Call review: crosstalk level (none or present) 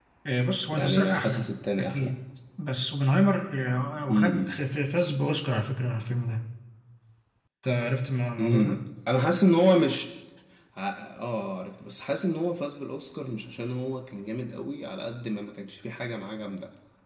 present